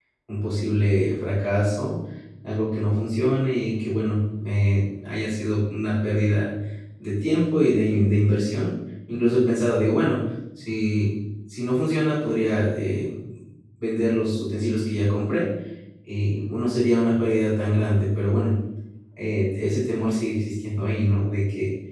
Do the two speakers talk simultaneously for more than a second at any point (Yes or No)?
No